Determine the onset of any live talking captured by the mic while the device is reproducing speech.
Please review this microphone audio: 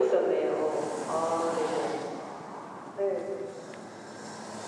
none

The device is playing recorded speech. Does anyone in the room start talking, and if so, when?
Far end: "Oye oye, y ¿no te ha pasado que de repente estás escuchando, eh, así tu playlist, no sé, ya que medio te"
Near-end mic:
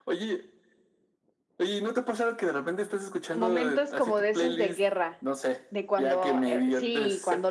3.4 s

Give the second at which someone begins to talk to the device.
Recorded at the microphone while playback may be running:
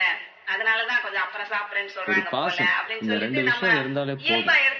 2.1 s

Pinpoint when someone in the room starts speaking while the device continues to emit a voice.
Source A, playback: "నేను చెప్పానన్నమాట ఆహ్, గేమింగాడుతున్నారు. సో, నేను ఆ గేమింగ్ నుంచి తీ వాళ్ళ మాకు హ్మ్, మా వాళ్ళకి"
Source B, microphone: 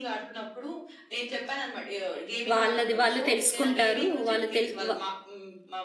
2.5 s

